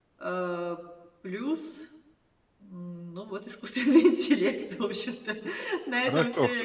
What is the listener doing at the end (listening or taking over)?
taking over